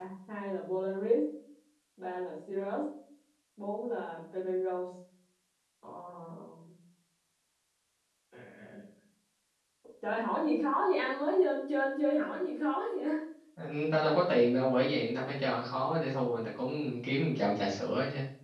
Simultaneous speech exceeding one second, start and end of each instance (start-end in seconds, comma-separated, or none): none